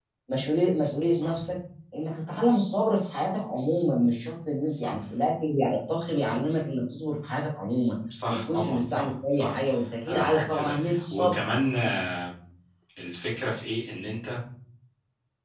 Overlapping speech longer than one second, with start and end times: 8.3-9.6, 10.1-11.4

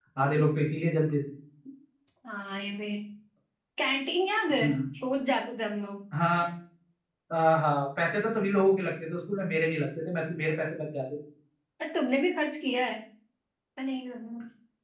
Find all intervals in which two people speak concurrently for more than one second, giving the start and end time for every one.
none

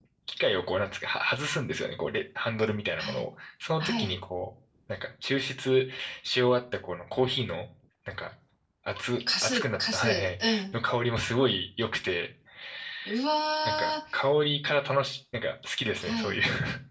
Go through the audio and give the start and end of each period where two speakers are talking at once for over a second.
9.4-10.6

